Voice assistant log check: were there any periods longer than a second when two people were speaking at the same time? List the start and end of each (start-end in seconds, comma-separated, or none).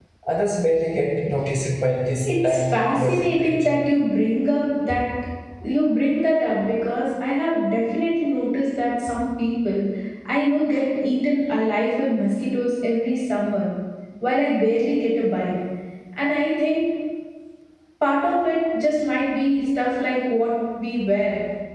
2.2-3.7